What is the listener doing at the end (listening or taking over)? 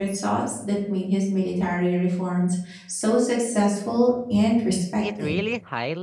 taking over